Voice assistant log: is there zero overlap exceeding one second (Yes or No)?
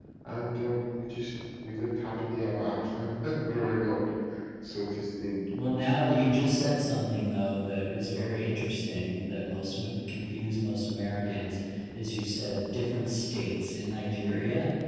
Yes